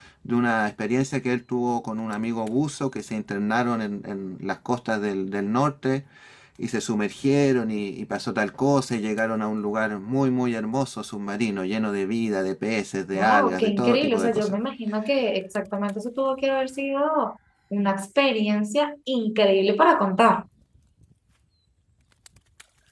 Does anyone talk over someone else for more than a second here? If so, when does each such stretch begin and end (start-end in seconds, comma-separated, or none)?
13.1-14.5